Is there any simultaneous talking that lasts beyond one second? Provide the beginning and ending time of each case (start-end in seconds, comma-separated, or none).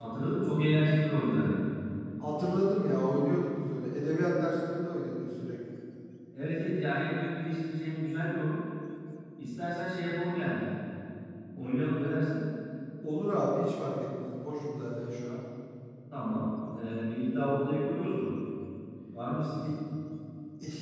none